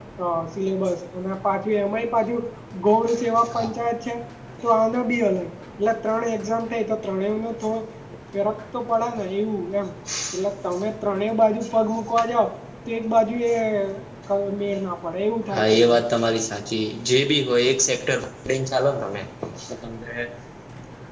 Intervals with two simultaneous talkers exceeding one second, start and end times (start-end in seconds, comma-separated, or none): none